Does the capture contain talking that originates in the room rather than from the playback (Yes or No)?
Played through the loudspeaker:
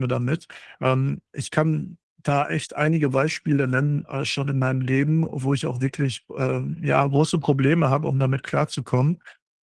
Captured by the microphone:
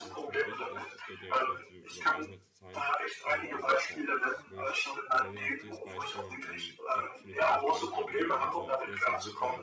Yes